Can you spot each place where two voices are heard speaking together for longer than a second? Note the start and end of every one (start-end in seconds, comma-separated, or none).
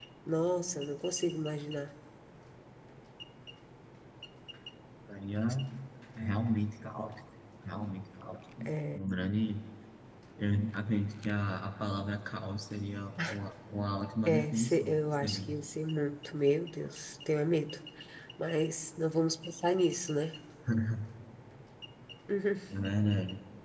14.2-15.6